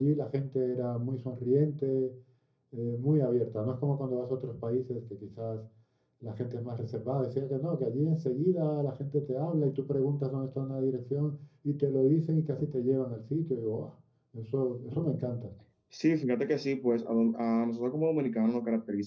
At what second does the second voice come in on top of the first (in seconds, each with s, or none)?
none